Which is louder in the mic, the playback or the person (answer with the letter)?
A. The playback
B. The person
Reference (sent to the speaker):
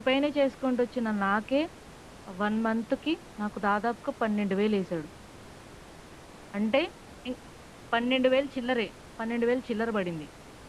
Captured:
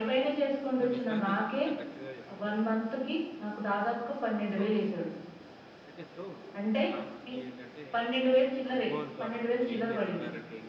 A